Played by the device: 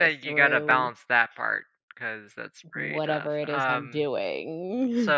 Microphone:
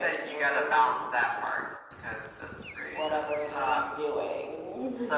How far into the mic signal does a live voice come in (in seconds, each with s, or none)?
none